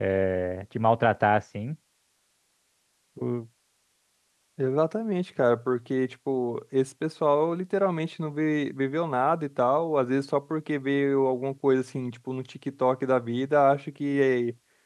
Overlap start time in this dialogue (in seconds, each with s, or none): none